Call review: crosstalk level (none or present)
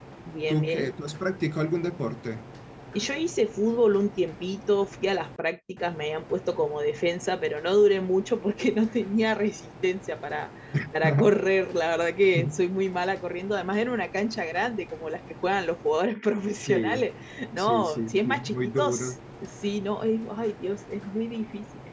present